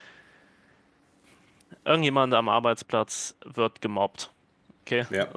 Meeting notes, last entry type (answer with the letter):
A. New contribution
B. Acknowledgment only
B